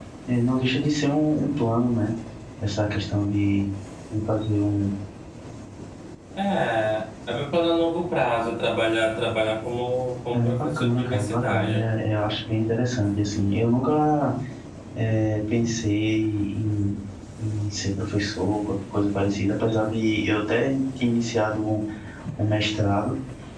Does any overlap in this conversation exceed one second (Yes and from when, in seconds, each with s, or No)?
Yes, from 10.3 s